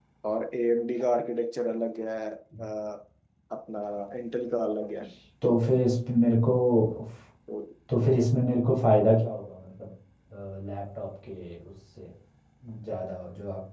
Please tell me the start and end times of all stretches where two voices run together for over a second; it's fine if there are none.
none

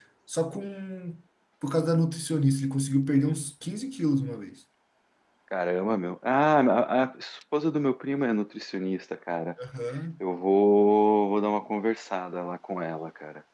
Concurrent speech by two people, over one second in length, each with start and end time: none

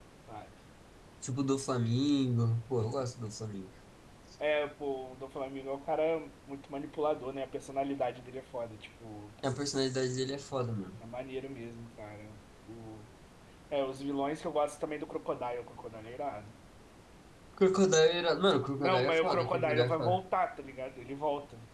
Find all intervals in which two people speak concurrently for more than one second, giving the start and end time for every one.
18.8-20.2

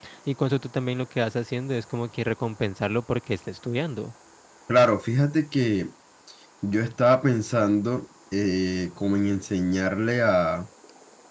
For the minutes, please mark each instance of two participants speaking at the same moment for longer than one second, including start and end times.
none

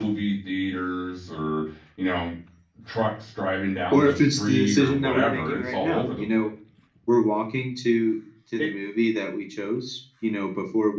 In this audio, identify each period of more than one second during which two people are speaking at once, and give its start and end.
3.9-6.5

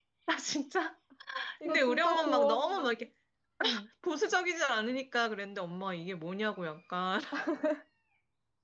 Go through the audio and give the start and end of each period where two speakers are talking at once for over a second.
1.6-2.9

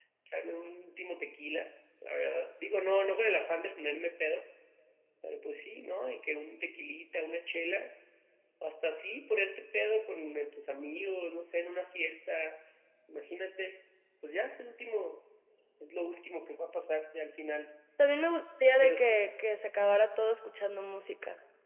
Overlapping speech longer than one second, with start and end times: none

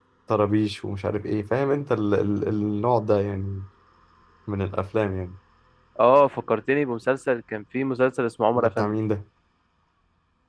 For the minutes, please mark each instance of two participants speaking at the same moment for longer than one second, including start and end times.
none

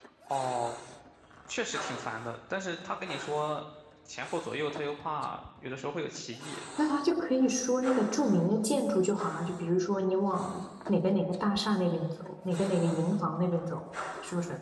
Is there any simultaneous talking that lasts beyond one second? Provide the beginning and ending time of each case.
none

